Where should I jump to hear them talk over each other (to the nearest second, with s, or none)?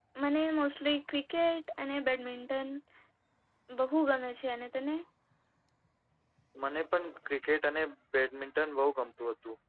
none